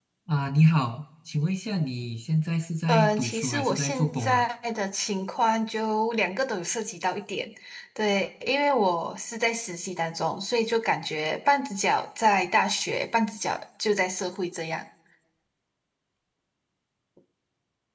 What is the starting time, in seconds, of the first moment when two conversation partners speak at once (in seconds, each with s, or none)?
2.9 s